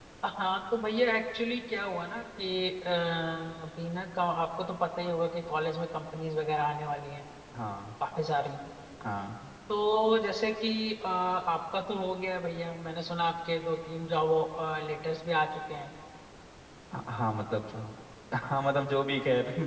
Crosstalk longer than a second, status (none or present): none